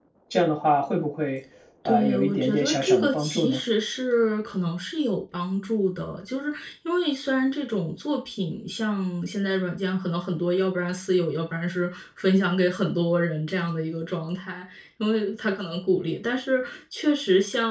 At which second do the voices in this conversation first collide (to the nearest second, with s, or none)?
2 s